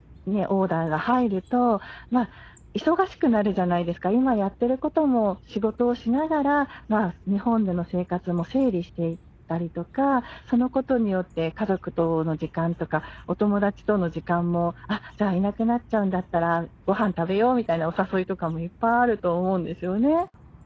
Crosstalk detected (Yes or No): No